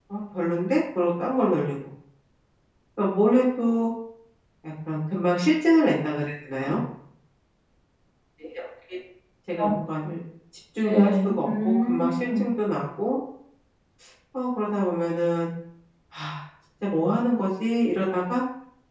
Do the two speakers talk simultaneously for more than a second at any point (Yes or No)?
Yes